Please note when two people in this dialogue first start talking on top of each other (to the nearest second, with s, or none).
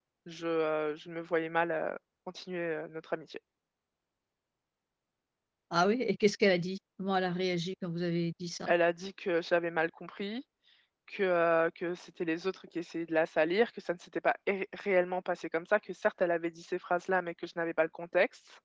none